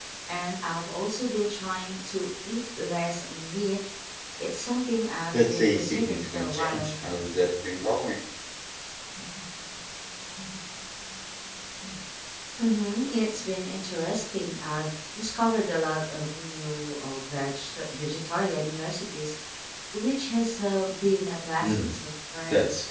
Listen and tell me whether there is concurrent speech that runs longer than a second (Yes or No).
Yes